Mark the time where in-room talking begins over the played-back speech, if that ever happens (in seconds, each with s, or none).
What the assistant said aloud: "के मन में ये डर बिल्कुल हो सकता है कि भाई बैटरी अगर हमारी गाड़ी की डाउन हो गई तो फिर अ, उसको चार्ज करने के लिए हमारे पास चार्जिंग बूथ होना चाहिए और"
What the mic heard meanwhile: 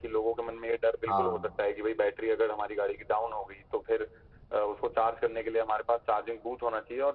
1.1 s